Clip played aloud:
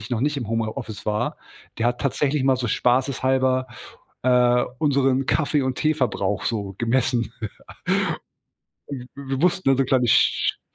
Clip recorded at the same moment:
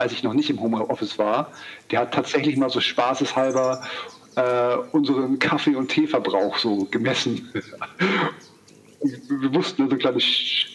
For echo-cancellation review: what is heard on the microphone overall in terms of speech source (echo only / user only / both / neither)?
echo only